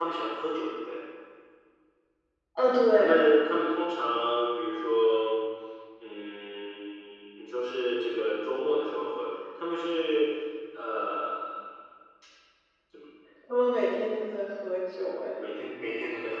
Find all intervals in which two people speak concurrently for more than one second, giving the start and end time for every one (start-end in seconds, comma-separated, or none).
none